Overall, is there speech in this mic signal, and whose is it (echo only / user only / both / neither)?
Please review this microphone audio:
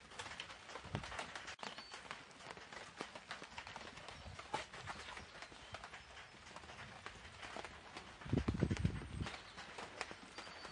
neither